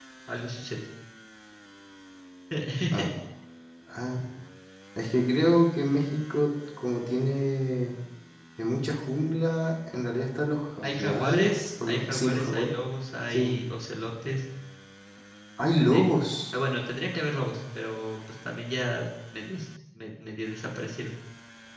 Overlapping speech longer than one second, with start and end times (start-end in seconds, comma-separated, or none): 10.8-12.7